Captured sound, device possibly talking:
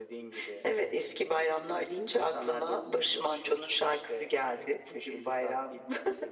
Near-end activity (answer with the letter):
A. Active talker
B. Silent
B